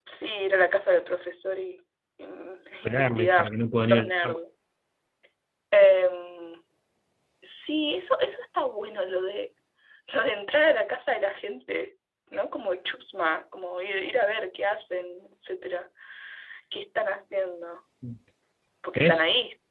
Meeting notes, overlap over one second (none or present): present